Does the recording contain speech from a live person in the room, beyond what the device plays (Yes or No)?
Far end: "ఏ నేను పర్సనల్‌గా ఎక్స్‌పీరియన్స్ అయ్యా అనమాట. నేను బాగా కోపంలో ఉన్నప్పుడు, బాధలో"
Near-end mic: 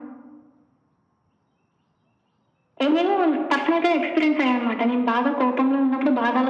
No